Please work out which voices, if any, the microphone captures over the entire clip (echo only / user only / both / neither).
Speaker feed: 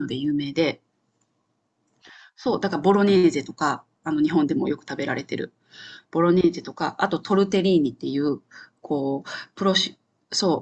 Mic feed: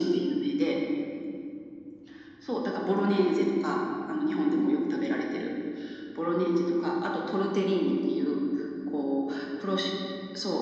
echo only